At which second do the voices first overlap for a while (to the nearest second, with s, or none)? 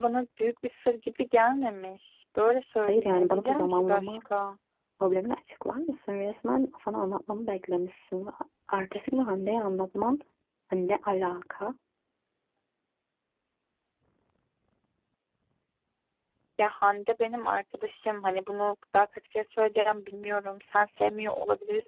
3 s